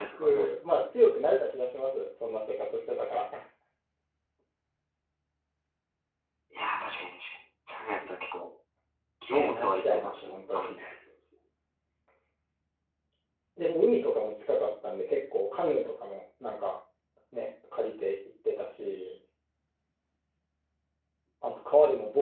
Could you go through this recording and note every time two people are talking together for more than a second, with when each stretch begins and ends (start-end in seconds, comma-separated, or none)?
9.3-10.7